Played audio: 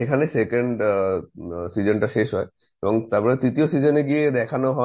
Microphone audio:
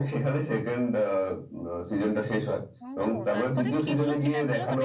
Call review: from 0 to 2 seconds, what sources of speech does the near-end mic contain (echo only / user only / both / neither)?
echo only